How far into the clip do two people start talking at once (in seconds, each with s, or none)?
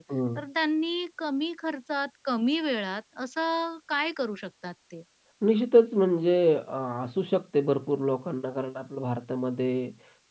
none